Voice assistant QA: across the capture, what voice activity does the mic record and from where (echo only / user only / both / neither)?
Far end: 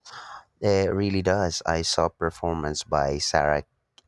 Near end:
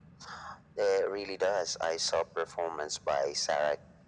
echo only